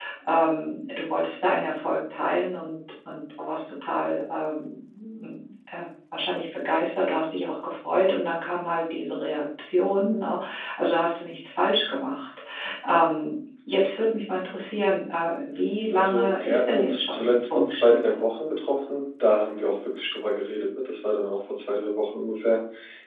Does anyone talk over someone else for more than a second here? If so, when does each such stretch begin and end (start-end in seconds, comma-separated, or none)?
15.9-18.2